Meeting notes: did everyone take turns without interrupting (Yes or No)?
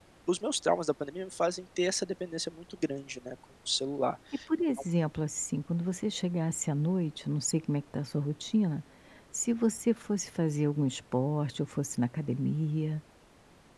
Yes